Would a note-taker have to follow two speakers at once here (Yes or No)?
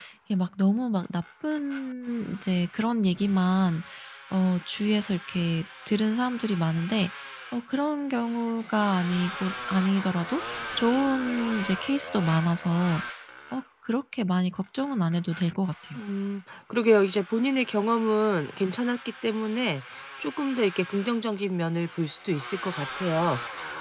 No